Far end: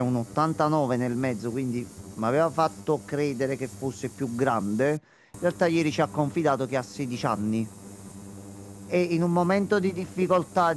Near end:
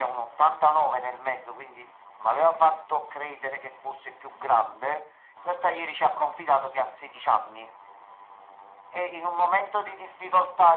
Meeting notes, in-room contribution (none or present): none